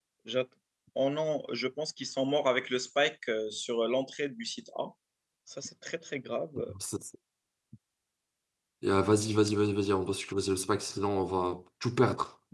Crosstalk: none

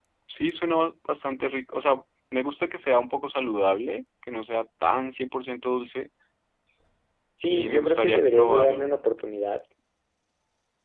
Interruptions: present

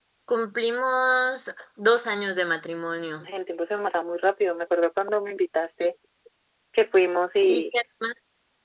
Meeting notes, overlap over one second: none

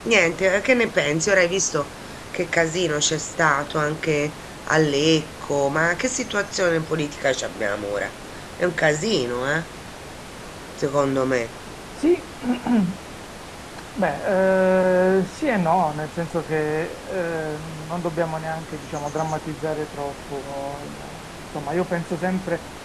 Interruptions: none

